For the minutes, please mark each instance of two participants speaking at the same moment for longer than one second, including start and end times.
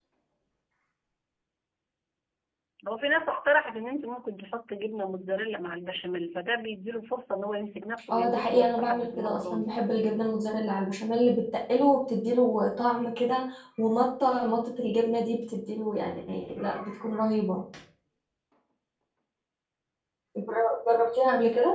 8.1-9.7

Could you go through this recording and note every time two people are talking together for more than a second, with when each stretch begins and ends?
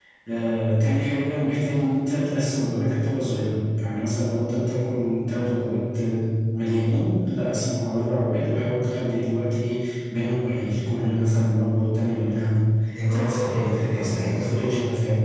13.1-14.7

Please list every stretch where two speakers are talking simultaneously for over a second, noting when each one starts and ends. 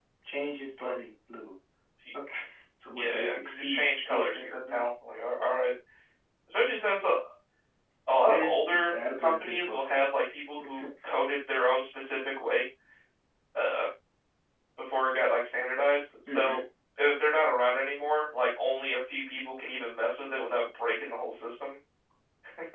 3.0-4.8, 8.3-10.1

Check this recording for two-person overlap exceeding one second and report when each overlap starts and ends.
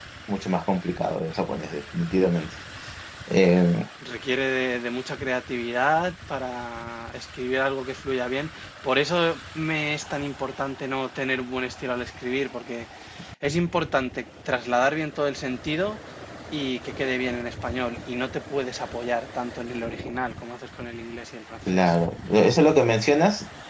none

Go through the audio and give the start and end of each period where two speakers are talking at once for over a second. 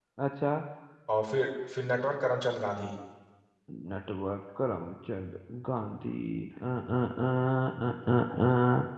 none

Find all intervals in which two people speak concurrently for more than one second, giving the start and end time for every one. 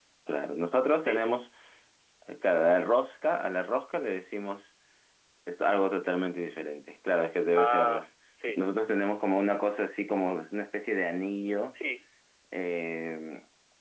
none

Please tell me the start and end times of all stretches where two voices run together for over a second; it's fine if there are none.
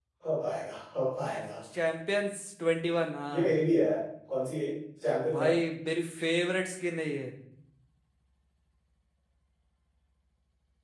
none

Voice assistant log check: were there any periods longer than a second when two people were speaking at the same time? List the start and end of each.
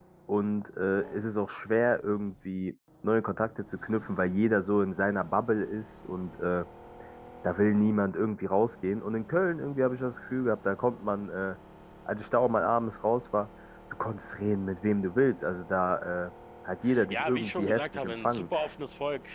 17.1-18.4

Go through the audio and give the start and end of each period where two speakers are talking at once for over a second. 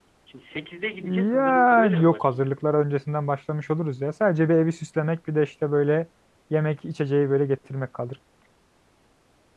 1.0-2.5

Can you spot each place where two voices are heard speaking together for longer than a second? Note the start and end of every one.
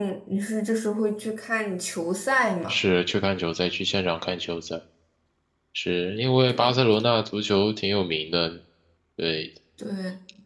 none

